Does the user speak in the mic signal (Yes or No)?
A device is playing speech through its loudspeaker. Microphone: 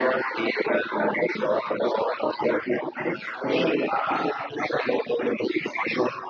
No